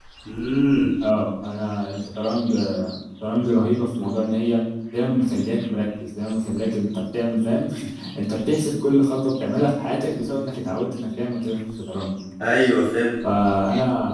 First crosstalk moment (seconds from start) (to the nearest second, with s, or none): none